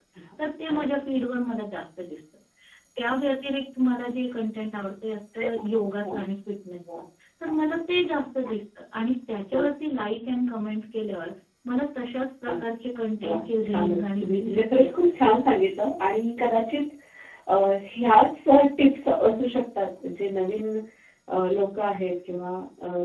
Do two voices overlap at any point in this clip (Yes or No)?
Yes